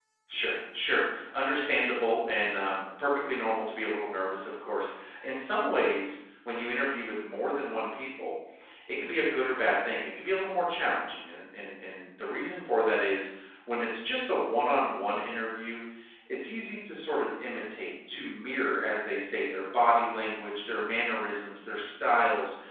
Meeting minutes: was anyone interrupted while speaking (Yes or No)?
No